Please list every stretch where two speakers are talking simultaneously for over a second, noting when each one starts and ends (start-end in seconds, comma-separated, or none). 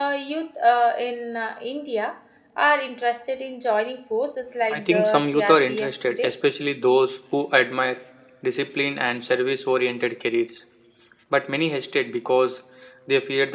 4.7-6.3